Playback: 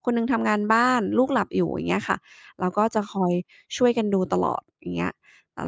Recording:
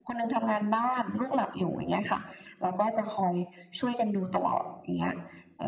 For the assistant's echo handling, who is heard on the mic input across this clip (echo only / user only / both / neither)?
echo only